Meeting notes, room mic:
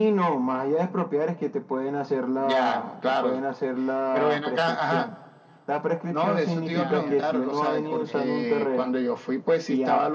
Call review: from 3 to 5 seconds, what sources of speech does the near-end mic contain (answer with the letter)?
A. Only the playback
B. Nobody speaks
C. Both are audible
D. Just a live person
A